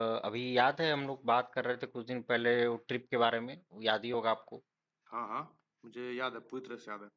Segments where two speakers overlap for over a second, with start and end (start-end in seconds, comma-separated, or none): none